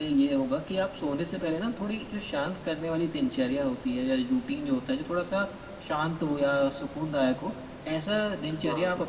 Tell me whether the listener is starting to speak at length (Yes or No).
No